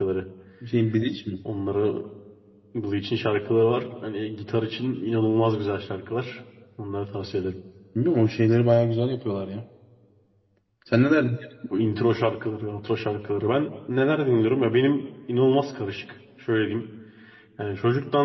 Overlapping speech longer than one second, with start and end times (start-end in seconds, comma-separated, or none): none